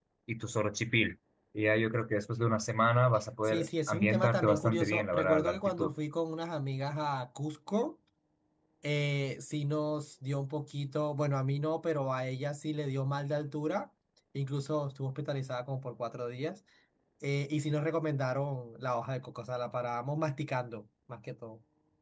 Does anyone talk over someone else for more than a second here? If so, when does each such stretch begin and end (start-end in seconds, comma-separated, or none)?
3.4-5.9